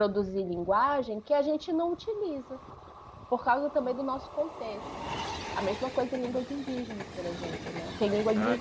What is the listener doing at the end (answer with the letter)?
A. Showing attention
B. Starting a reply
B